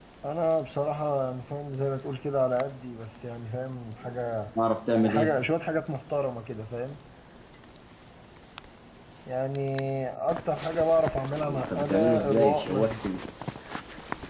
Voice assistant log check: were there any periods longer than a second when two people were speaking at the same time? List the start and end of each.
11.4-13.1

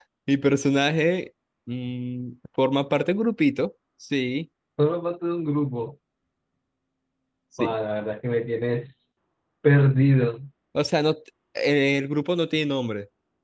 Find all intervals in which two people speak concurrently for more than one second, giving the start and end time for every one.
none

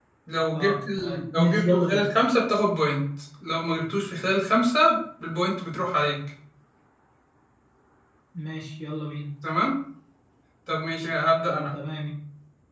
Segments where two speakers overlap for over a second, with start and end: 0.5-2.0

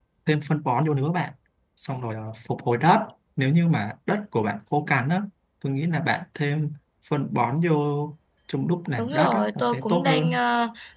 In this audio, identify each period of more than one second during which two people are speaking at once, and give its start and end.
9.0-10.4

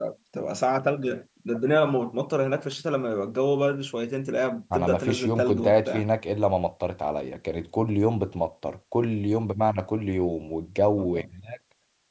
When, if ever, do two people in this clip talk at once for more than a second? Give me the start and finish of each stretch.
4.7-6.0

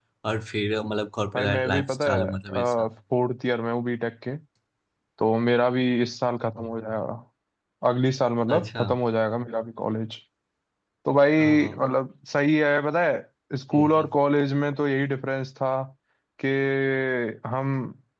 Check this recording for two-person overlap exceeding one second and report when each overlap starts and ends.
1.4-2.9

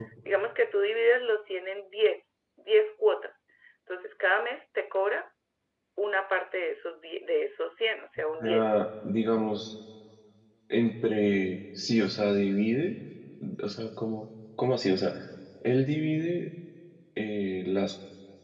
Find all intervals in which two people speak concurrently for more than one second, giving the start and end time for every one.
none

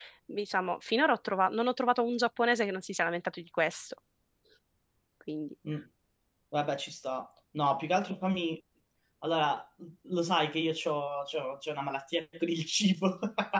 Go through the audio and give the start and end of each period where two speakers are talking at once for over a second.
none

